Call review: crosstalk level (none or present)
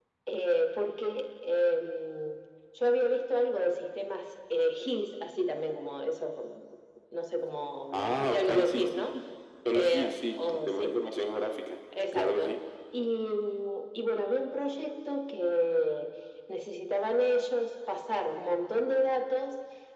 present